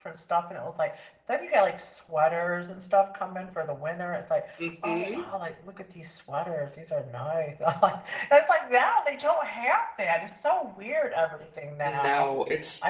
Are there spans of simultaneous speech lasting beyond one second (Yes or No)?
No